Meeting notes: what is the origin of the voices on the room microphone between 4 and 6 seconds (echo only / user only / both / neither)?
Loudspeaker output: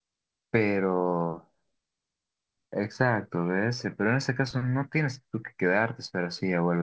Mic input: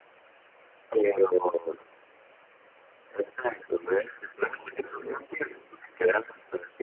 both